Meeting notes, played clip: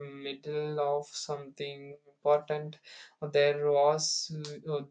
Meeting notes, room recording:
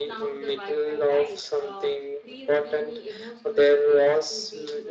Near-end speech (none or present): present